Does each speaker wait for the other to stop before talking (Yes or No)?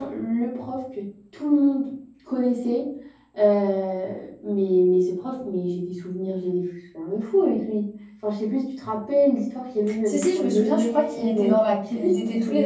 No